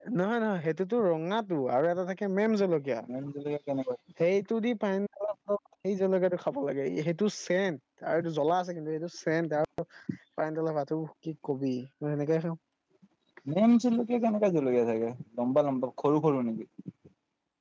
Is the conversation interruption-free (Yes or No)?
Yes